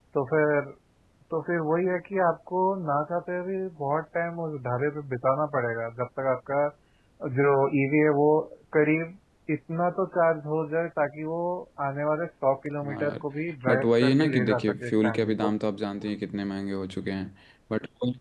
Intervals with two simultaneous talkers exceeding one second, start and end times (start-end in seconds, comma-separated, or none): 13.7-15.5